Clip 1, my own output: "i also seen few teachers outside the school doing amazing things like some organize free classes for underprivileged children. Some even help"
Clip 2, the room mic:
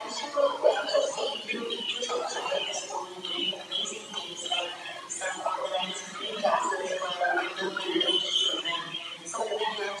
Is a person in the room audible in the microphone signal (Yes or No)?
No